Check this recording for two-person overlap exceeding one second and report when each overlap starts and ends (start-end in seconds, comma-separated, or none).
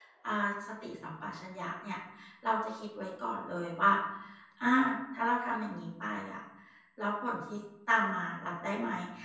none